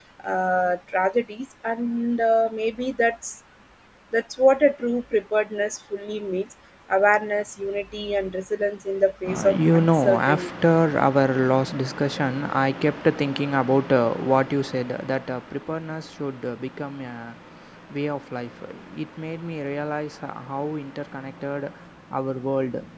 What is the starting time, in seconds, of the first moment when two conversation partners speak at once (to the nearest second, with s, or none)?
9 s